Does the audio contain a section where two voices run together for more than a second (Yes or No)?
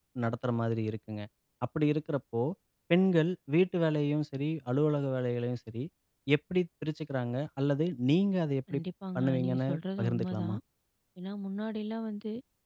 Yes